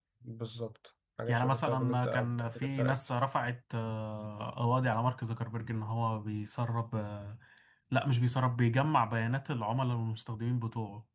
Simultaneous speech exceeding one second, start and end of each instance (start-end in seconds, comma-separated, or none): 1.3-3.0